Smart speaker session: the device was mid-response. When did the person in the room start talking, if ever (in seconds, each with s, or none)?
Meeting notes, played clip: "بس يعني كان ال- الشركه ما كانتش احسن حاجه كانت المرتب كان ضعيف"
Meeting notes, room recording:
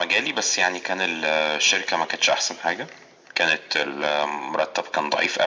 none